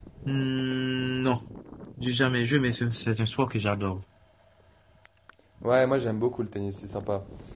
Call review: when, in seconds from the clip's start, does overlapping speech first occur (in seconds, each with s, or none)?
none